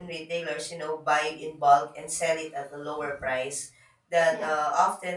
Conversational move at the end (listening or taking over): listening